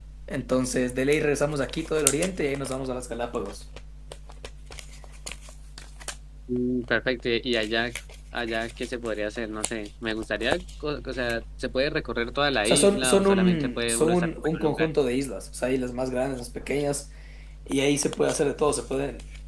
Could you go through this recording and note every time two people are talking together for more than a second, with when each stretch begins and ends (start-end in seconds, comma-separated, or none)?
12.7-14.9